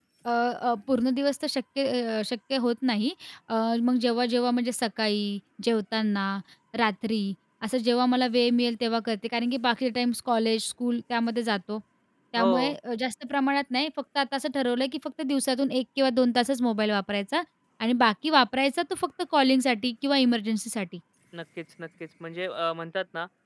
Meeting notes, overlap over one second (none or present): none